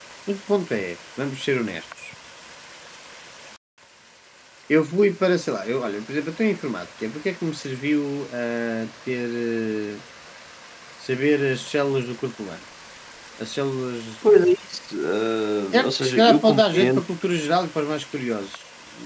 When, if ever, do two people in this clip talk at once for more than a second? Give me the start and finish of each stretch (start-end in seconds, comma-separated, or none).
15.7-17.0